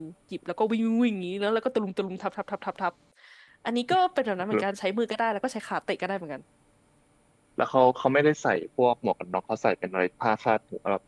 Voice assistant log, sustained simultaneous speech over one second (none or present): none